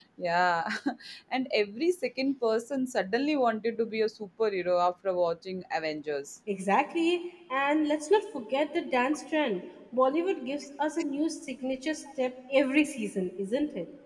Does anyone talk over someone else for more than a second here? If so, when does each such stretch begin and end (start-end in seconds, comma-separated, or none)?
none